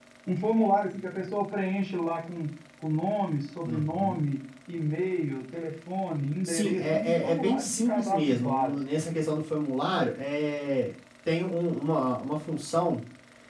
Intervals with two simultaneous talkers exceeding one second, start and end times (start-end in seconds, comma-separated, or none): 6.4-8.7